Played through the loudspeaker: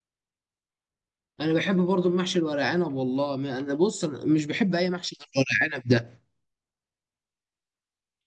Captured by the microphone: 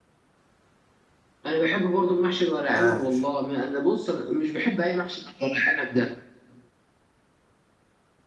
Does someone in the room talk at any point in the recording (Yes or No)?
Yes